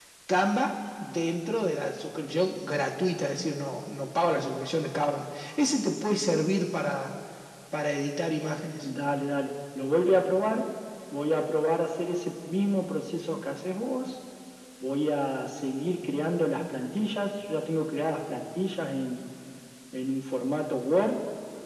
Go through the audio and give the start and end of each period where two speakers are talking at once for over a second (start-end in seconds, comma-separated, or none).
none